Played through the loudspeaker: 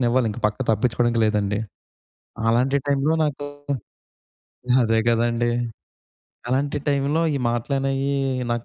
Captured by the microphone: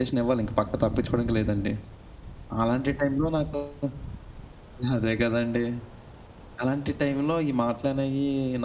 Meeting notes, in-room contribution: none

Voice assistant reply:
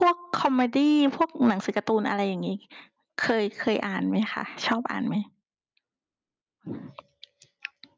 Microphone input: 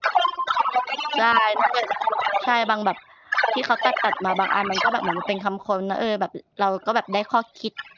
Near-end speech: present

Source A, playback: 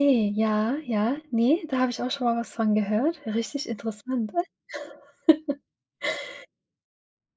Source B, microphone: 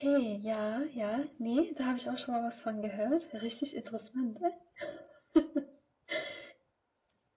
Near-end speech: none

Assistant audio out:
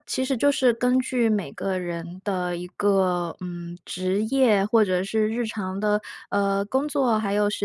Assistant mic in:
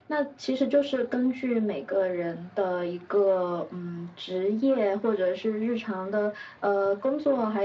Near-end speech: none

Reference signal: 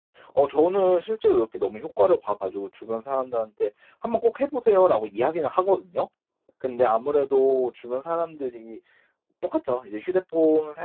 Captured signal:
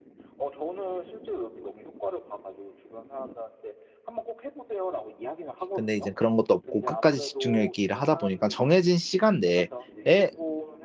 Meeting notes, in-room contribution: present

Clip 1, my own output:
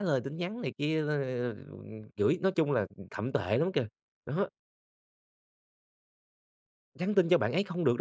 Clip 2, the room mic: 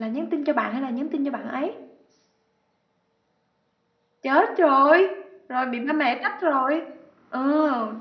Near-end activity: present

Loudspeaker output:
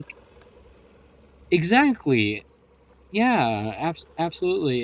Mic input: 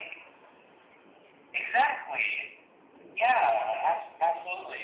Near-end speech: none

